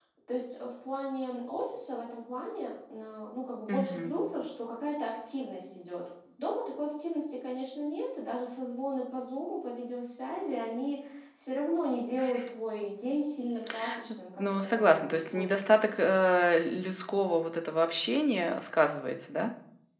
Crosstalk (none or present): present